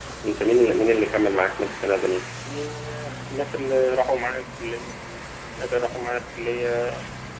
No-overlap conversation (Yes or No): Yes